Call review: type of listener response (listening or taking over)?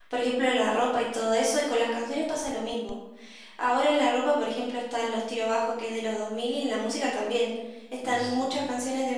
listening